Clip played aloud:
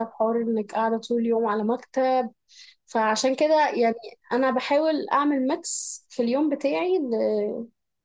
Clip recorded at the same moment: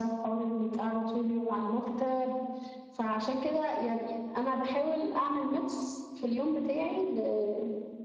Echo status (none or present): present